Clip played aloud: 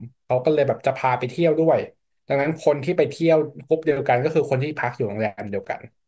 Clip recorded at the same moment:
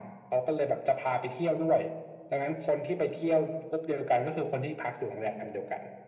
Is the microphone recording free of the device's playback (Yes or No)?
No